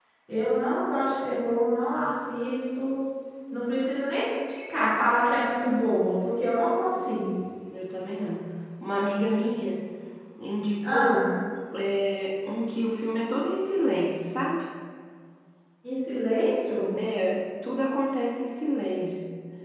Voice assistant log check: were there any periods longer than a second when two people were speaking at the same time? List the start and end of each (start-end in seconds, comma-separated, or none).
none